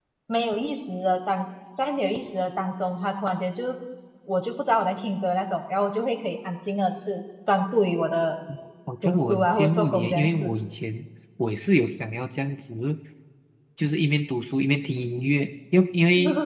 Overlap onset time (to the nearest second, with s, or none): 9 s